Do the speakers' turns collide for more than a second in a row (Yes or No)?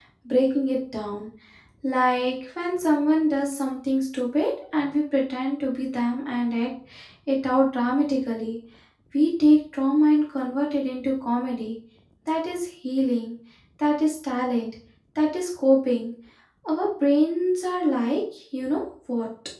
No